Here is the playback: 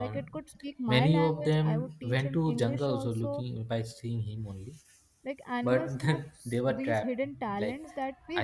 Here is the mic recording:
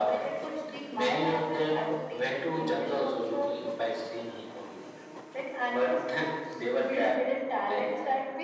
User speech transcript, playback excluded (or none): none